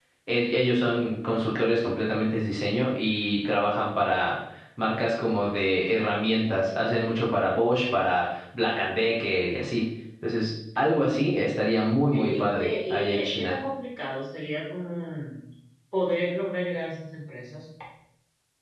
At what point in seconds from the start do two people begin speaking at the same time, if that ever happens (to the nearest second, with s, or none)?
12 s